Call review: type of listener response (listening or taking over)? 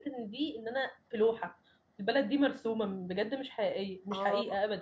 taking over